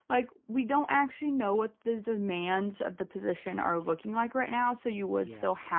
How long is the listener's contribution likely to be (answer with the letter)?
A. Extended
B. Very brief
B